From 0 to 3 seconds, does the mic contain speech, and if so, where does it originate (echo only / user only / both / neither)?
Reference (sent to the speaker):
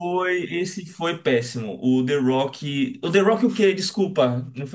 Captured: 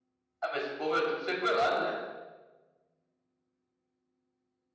user only